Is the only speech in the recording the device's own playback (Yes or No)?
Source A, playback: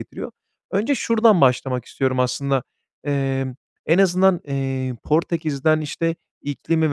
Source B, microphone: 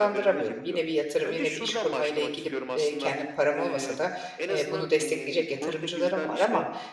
No